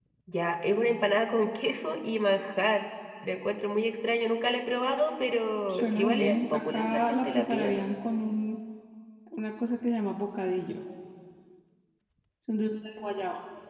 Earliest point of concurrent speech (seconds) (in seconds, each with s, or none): 5.7 s